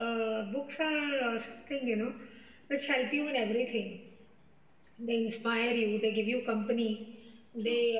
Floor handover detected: No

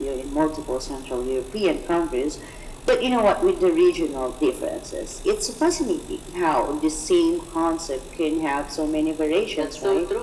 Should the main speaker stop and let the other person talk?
Yes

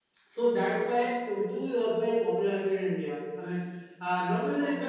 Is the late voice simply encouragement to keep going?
Yes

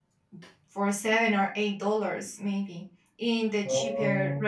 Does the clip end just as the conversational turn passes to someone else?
No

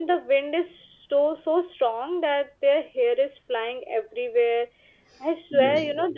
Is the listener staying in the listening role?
Yes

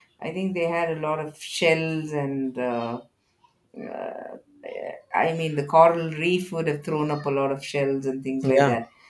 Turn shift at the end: No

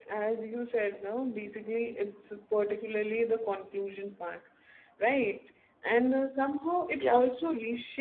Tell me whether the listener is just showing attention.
Yes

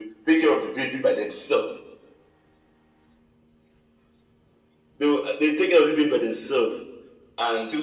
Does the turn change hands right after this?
No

